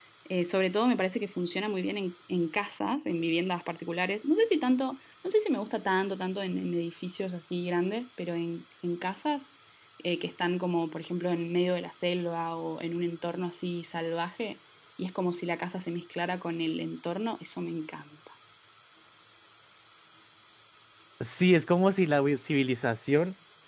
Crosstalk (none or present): none